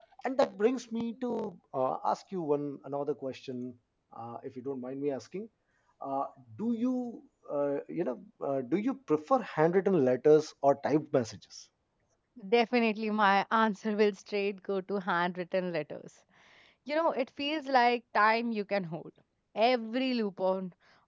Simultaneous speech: No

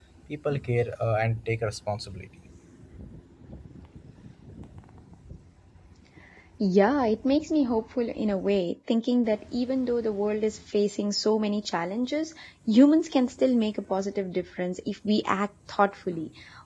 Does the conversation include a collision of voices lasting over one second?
No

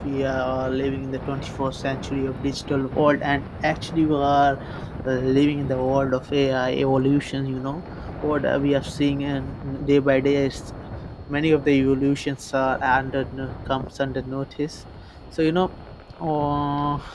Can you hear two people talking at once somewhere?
No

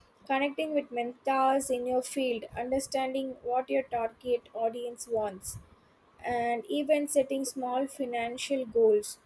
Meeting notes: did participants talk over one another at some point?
No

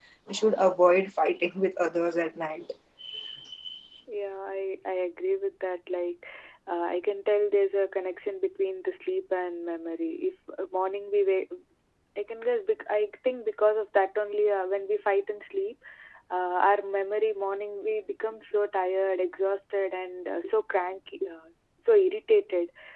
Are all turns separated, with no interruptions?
Yes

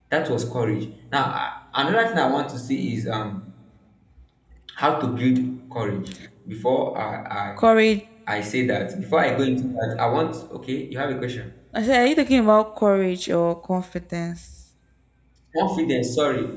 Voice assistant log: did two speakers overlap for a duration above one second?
No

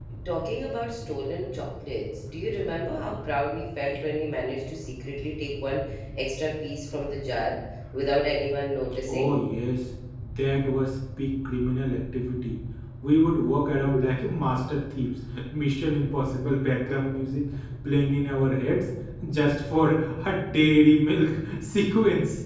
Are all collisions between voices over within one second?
Yes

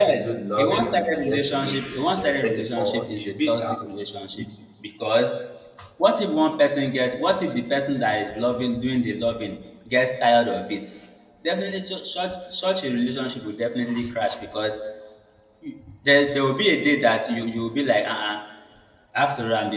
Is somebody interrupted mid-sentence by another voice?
Yes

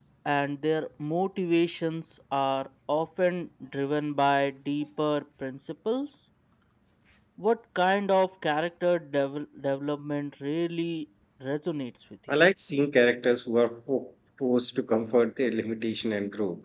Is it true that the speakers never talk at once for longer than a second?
Yes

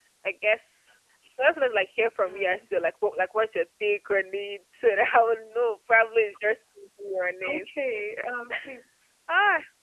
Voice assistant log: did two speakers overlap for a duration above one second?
No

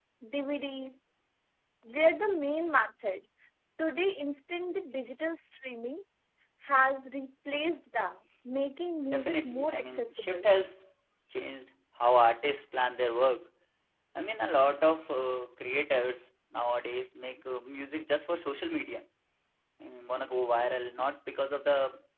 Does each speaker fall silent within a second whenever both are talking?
No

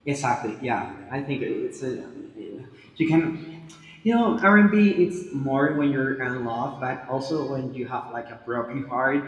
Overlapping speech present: No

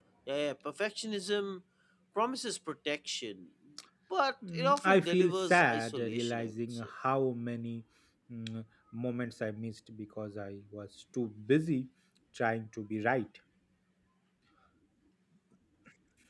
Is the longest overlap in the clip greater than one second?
Yes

